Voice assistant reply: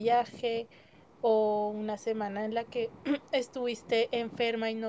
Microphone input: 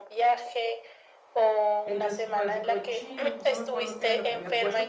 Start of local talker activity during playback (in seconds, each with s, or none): 1.8 s